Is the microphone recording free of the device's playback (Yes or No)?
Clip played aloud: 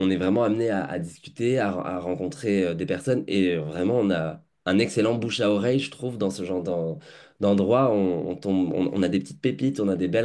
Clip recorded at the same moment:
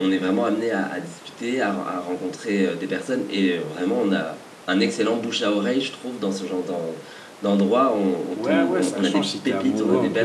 No